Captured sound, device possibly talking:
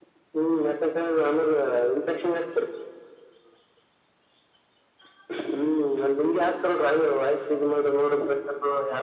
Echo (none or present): present